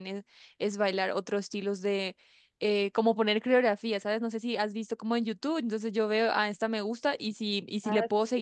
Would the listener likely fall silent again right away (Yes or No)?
Yes